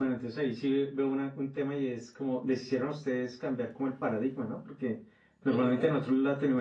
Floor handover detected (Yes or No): No